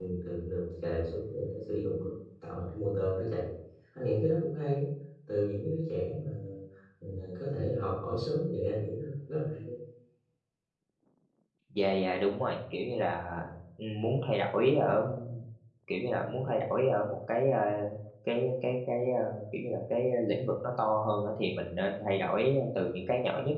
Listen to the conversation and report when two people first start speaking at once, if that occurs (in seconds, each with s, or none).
none